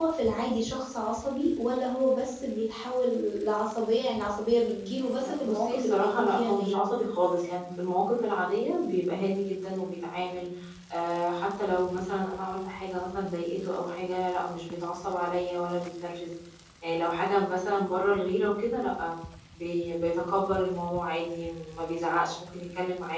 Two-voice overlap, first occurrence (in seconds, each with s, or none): 5.2 s